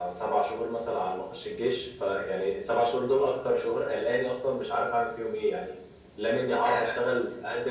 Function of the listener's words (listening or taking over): listening